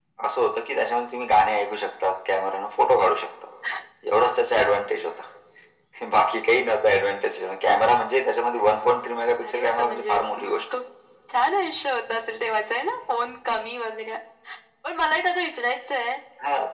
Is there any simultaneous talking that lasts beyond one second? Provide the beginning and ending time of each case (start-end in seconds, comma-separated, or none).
9.4-10.6